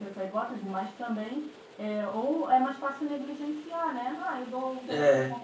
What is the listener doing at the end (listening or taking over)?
listening